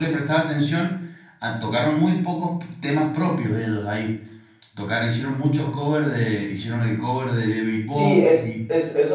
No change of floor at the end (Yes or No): No